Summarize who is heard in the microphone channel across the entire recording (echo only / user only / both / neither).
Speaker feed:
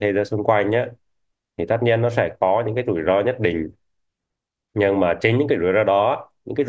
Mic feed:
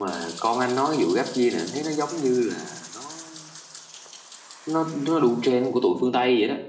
user only